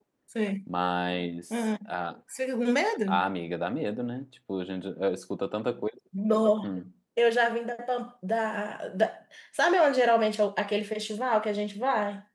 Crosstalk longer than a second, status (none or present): none